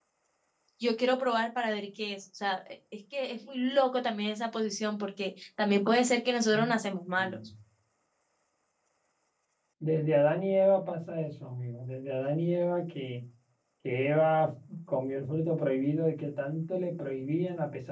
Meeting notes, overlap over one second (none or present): none